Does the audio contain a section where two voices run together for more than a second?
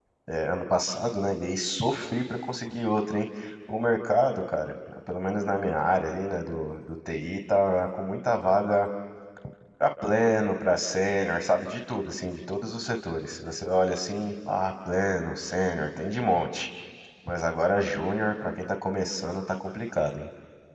No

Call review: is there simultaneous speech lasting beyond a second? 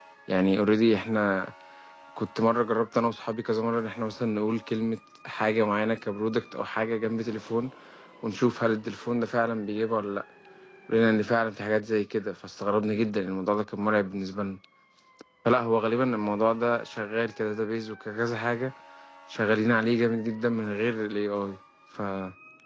No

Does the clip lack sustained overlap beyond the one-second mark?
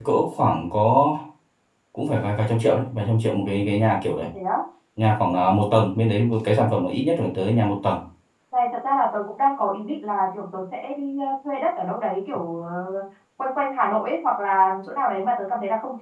Yes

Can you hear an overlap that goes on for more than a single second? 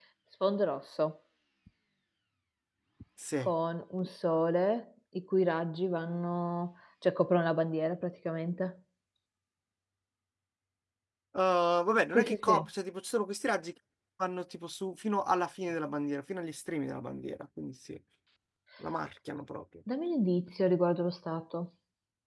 No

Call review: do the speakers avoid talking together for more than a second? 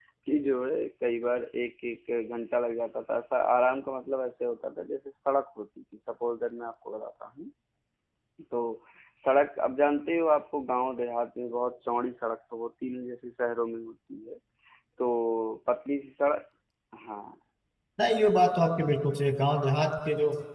Yes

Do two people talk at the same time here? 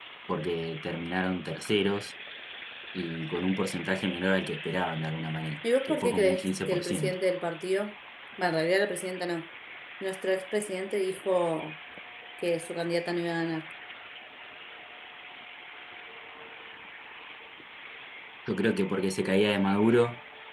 Yes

